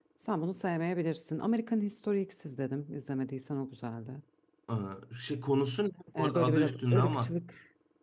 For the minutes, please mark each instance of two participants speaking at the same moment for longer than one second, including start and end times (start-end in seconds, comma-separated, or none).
6.2-7.4